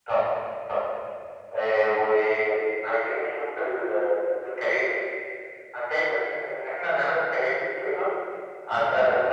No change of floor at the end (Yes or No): Yes